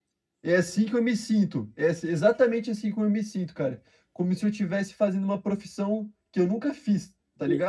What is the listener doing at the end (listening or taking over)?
taking over